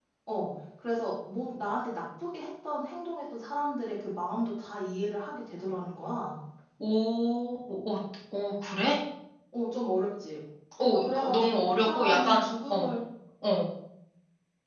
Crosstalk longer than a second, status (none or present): present